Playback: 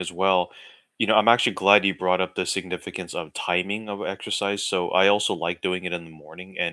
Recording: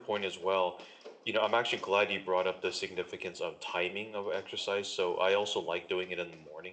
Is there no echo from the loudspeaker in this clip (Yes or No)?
No